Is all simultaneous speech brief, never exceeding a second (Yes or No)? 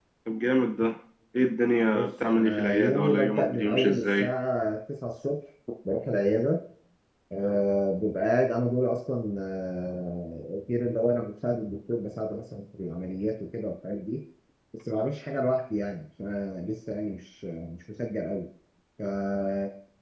No